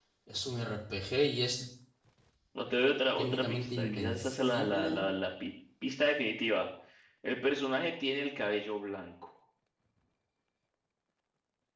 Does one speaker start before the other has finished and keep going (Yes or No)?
Yes